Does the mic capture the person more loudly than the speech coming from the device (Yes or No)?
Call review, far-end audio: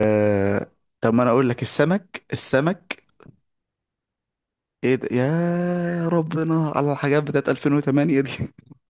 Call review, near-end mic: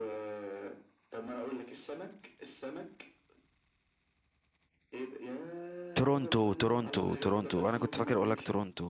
Yes